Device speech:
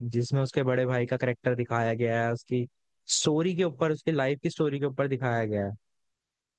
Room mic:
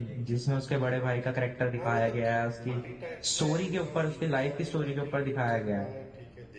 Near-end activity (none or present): present